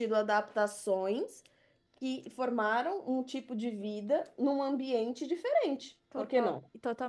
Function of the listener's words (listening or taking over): taking over